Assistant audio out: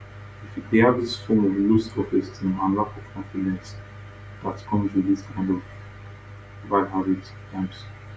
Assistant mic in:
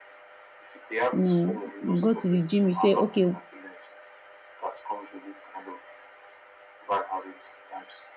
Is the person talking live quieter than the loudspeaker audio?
No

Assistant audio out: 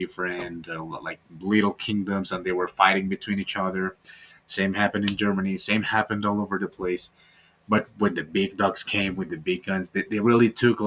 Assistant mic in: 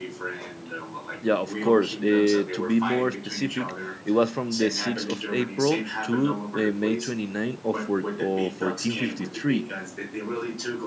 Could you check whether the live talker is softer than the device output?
No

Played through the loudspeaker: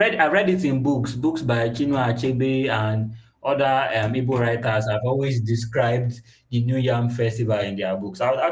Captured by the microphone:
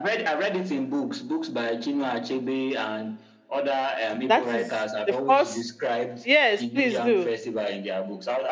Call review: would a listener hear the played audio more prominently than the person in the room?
No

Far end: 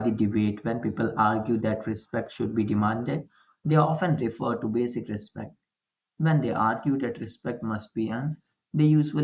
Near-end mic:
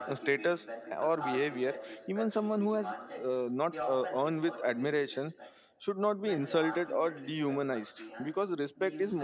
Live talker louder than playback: Yes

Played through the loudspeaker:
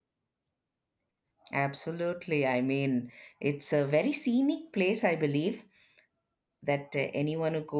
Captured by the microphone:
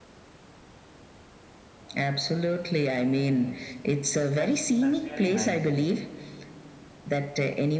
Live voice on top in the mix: No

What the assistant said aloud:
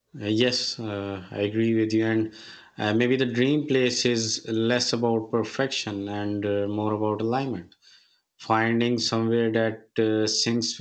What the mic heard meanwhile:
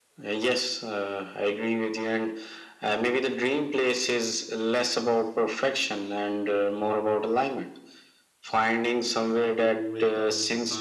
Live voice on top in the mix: No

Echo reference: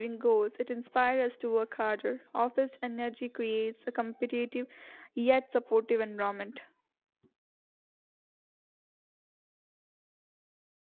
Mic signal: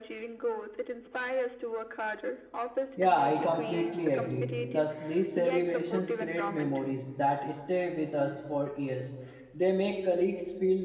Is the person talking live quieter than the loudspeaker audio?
No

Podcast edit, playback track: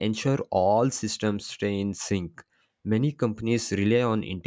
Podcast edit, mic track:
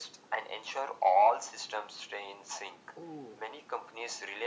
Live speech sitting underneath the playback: Yes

